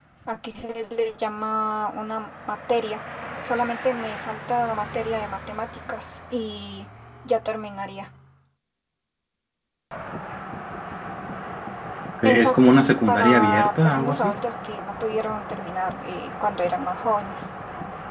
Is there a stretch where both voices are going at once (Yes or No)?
Yes